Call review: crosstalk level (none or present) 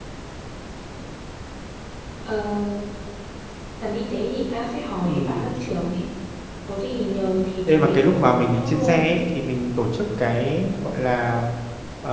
present